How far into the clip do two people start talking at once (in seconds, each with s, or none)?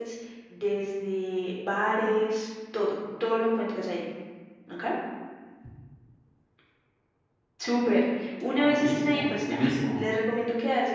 8.5 s